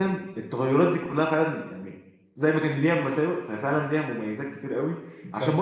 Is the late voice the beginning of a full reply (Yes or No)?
No